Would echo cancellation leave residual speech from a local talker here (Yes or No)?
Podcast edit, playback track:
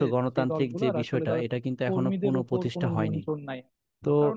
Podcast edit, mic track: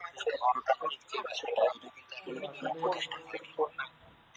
Yes